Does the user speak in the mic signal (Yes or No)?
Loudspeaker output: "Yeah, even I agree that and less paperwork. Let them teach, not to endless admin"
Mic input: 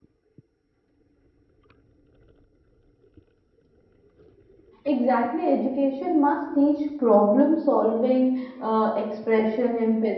Yes